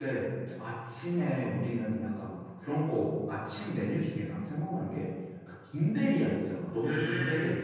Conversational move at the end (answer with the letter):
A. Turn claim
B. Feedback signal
A